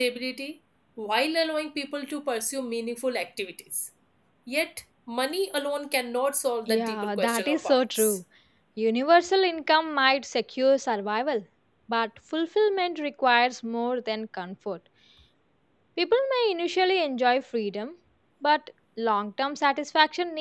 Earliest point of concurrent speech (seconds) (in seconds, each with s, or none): 6.7 s